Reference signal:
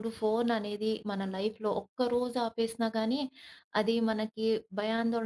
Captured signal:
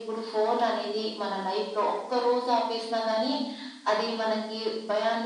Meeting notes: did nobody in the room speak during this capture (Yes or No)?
Yes